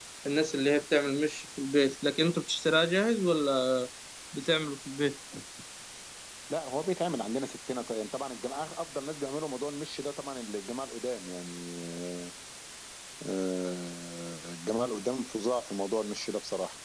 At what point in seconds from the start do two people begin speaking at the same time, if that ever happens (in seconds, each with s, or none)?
none